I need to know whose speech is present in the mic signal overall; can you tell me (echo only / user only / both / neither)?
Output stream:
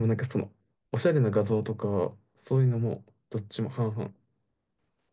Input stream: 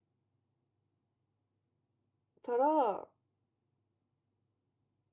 user only